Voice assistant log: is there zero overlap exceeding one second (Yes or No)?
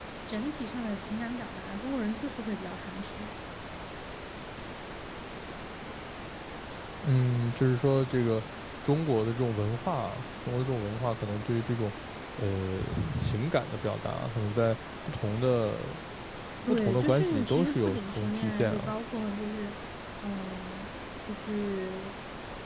No